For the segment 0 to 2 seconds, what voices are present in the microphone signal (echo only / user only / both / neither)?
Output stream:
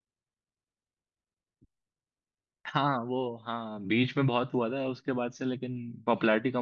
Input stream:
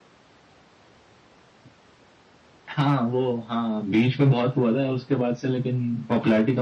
neither